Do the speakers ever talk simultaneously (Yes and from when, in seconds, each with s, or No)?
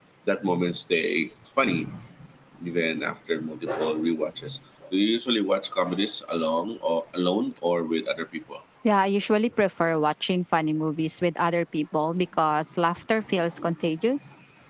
No